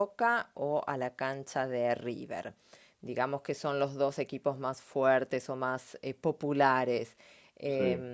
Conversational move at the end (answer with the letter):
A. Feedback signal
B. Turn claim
A